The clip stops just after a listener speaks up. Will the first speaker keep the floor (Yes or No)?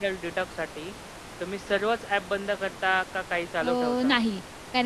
No